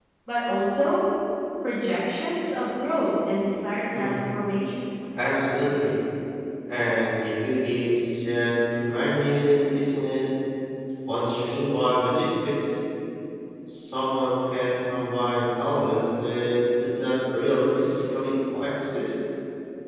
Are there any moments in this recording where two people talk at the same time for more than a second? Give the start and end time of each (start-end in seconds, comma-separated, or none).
none